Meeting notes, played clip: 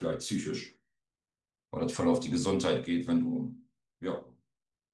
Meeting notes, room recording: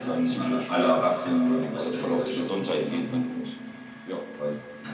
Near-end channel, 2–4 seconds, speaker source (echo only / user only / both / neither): both